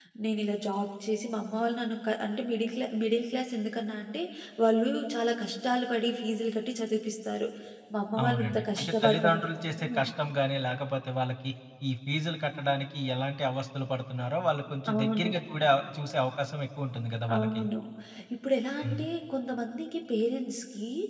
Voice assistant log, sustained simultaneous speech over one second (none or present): present